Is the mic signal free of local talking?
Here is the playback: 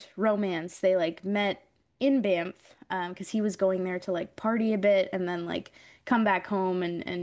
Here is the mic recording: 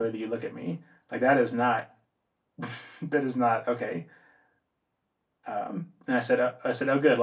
No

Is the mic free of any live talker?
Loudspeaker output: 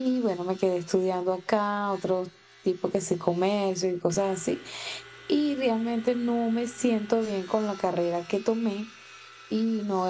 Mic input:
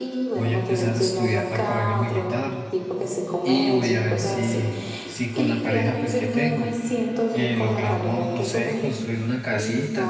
No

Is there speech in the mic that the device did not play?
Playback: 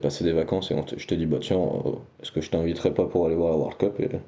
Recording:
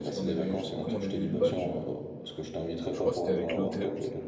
Yes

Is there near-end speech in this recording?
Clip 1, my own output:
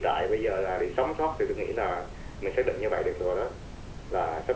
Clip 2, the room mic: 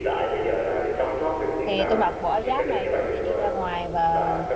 Yes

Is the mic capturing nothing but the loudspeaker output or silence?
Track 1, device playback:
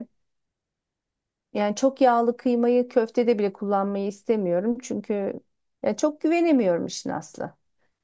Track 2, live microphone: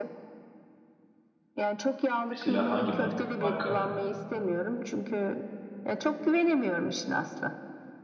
No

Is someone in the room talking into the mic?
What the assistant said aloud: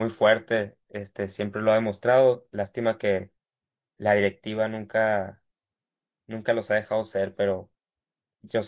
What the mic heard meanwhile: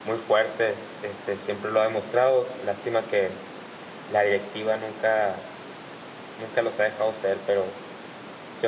No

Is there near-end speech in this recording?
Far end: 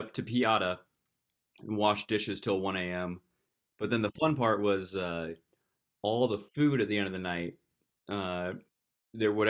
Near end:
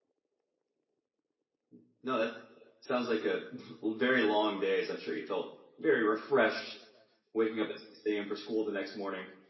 Yes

